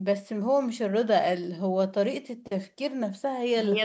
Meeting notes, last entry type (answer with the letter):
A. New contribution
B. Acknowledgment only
A